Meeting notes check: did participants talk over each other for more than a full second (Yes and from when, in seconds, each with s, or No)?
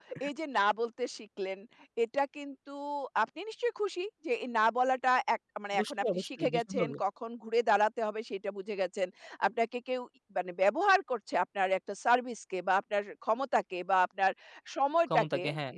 Yes, from 5.7 s